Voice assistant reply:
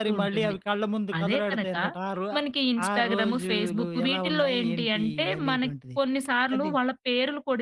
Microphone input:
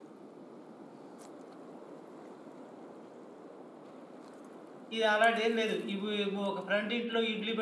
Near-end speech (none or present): present